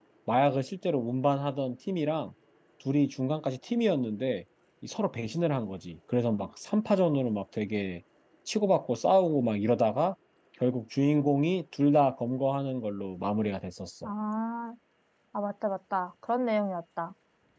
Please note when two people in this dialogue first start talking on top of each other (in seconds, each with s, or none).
none